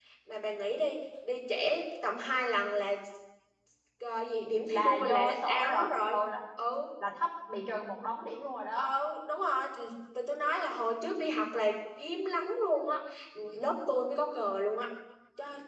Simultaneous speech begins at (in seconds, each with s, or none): 4.7 s